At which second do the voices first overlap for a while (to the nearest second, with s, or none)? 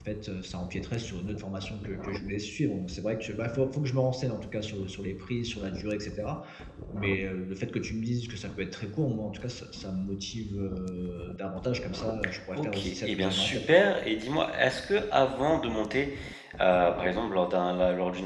13 s